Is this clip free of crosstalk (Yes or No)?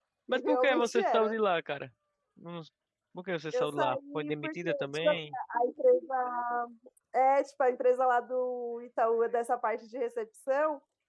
No